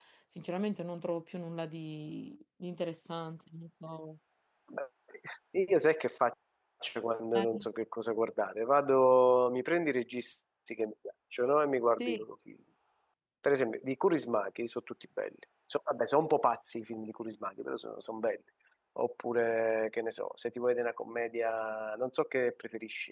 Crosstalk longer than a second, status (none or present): none